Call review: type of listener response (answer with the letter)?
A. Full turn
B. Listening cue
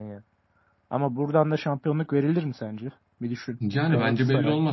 A